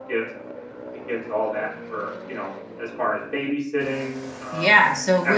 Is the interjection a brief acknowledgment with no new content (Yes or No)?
No